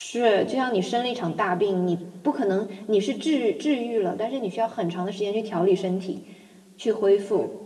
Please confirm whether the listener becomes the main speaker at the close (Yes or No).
No